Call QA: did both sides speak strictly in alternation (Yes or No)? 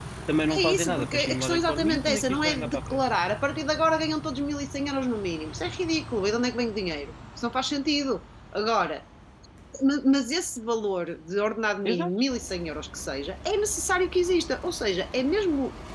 No